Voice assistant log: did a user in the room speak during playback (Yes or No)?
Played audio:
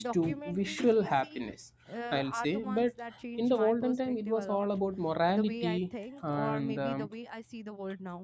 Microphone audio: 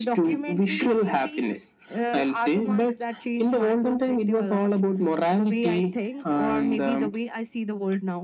No